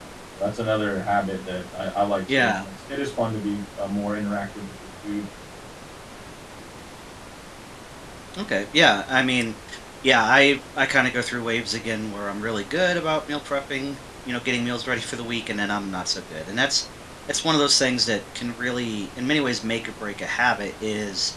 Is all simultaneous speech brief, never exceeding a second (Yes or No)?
Yes